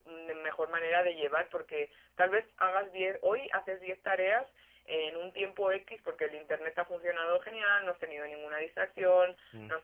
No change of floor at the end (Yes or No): Yes